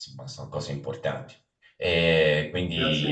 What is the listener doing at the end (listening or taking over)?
taking over